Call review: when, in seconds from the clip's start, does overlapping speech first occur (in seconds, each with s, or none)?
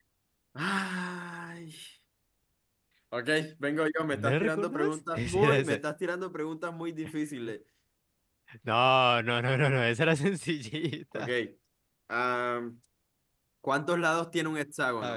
4.1 s